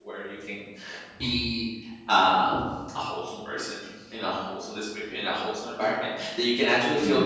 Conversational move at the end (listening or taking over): listening